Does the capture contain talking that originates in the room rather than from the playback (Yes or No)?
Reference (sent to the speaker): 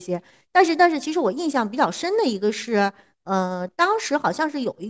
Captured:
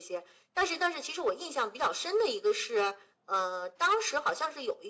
No